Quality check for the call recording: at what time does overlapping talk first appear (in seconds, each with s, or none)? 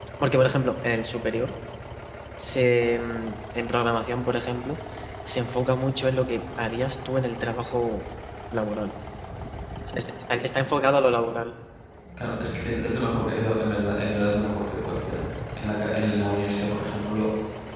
none